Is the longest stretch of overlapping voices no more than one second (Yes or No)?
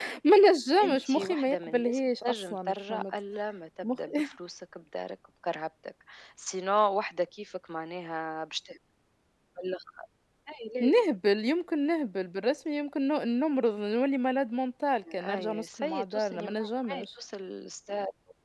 No